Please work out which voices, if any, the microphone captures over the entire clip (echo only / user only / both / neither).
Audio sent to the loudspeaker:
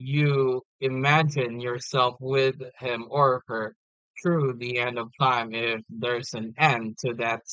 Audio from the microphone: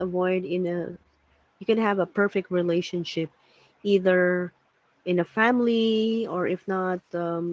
user only